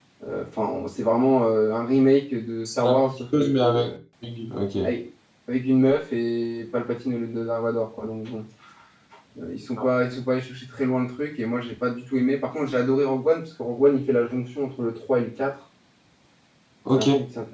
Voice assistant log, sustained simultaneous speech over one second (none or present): present